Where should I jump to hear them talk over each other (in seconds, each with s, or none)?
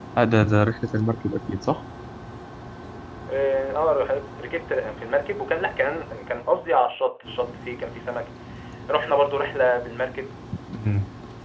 none